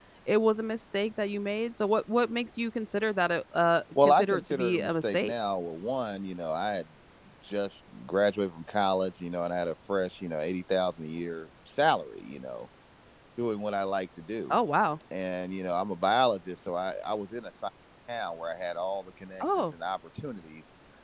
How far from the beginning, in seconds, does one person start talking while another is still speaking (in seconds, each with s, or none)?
4.0 s